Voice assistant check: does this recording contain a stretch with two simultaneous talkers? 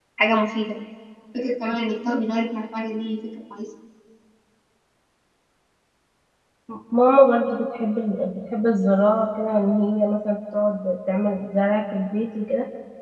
No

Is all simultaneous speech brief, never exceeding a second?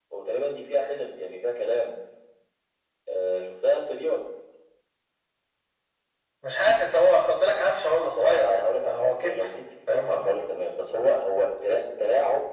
No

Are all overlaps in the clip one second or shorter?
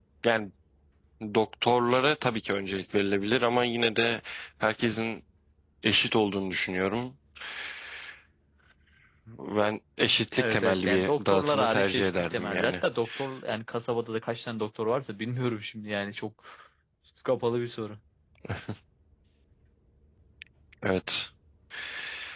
No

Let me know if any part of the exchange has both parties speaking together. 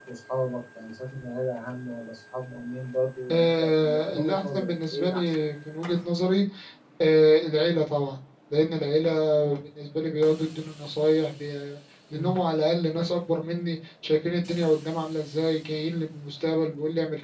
Yes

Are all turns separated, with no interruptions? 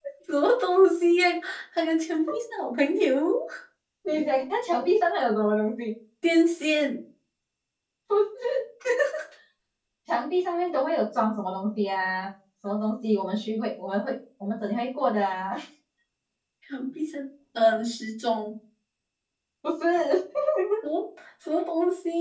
Yes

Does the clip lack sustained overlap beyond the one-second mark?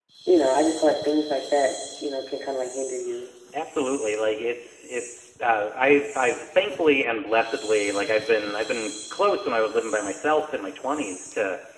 Yes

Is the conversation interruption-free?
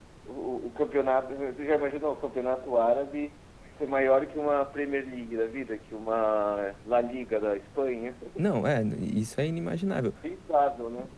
Yes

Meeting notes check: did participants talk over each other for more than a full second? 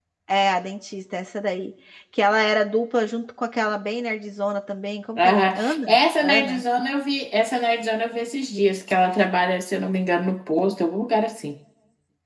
Yes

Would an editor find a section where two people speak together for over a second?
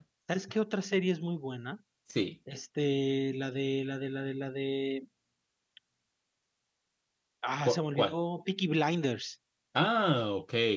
No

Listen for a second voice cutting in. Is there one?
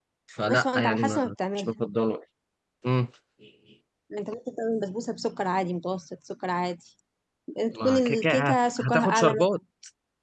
Yes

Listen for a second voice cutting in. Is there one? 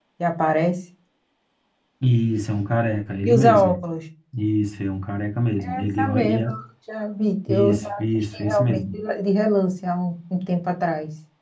Yes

